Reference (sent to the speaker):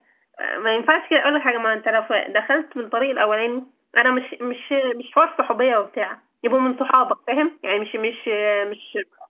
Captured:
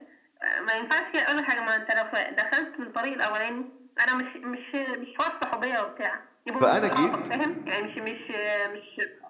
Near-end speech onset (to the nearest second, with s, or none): 7 s